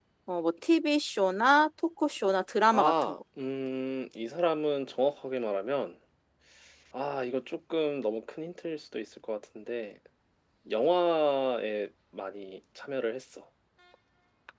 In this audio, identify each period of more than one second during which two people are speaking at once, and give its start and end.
none

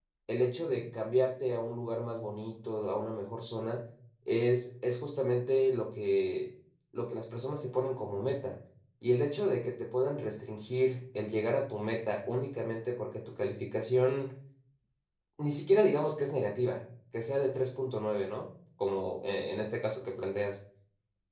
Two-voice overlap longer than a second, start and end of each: none

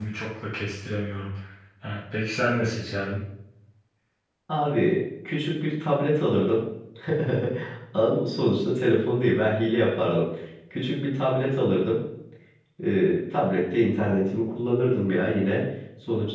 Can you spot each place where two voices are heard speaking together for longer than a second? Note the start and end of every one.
none

